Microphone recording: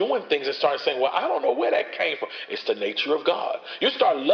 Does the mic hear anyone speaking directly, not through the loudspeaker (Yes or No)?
No